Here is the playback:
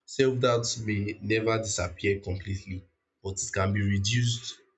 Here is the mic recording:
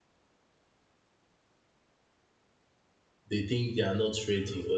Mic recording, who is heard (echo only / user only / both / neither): user only